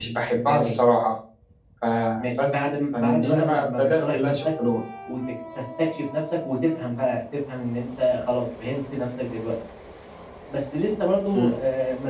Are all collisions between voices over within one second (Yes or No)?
No